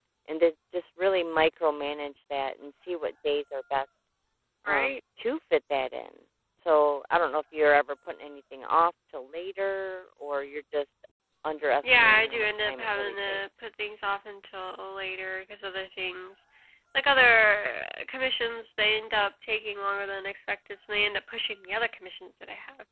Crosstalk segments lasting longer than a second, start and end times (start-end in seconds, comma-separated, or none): 11.8-13.4